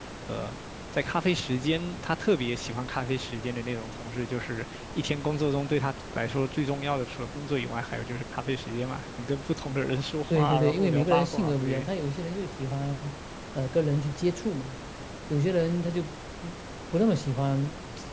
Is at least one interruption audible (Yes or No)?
Yes